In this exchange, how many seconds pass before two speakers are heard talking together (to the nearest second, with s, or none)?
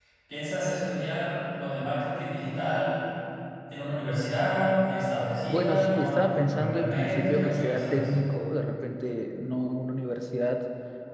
5 s